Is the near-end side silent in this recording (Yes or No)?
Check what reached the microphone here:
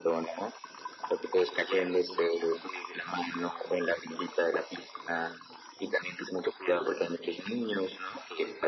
Yes